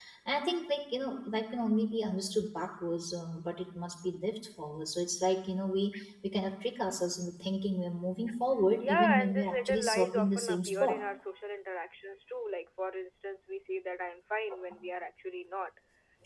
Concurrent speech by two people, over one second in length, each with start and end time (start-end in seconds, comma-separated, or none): 8.9-11.0